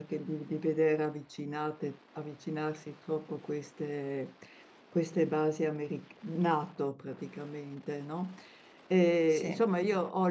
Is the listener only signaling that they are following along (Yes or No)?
Yes